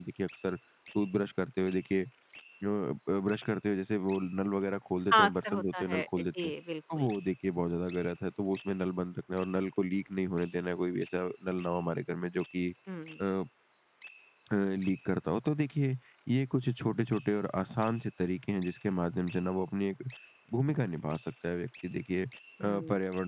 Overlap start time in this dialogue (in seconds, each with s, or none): 5.1 s